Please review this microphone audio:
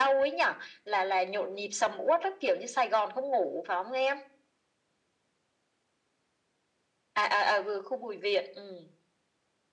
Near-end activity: none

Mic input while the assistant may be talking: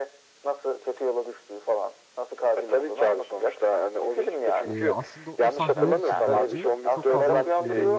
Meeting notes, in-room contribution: present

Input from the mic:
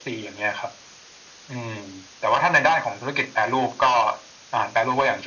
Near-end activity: none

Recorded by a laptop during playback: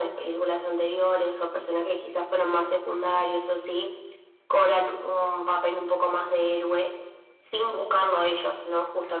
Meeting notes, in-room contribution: none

